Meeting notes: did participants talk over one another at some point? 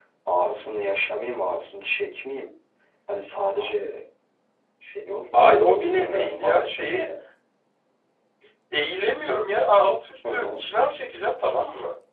Yes, from 5.3 s

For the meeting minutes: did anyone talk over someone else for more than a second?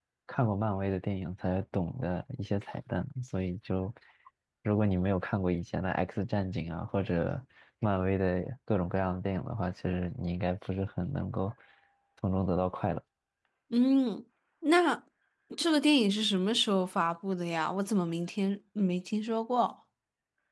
No

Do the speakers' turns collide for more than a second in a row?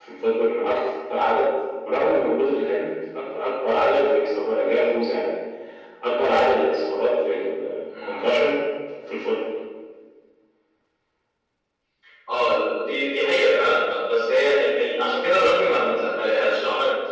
No

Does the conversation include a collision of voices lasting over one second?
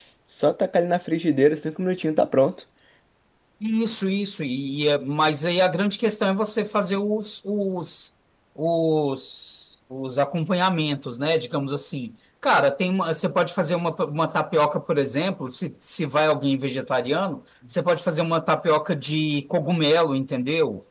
No

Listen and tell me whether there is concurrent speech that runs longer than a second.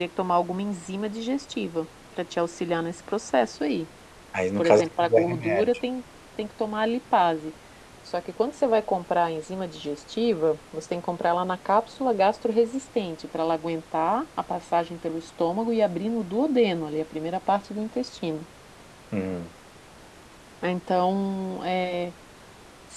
Yes, from 4.6 s

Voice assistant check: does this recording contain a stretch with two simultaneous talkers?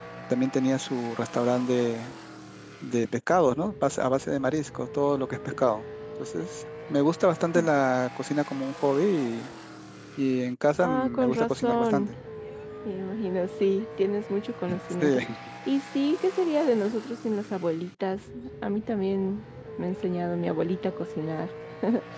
Yes, from 10.8 s

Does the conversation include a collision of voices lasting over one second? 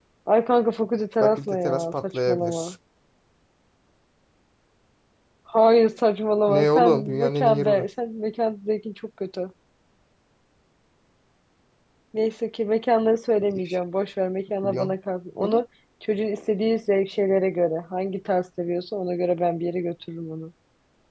Yes, from 1.2 s

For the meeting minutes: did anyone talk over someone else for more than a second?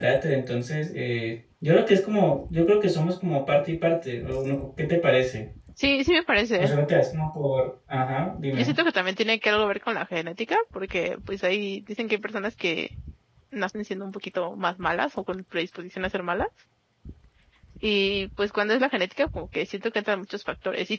No

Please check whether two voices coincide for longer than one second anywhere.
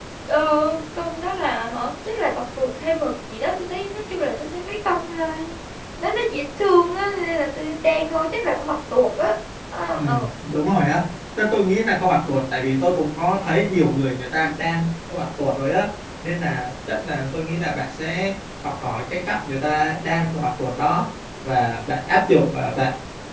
No

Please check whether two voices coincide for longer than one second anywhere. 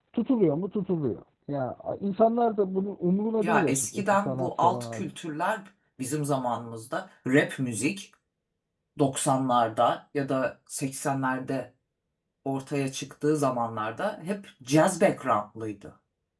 Yes, from 3.4 s

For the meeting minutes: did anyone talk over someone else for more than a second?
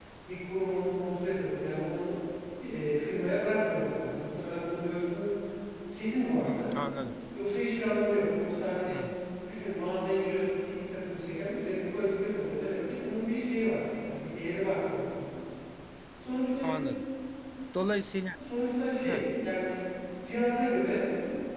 No

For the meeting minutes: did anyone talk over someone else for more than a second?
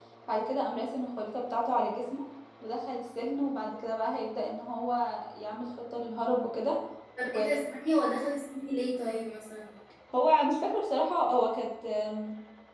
No

